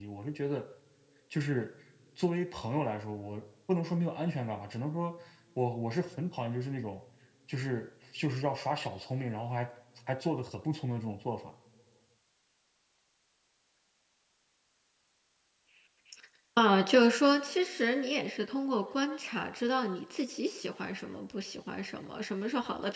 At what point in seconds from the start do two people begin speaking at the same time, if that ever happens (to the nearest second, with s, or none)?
none